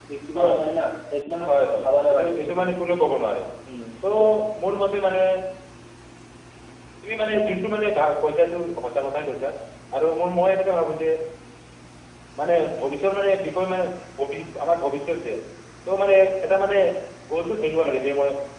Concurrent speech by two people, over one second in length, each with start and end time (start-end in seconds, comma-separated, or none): 1.5-2.7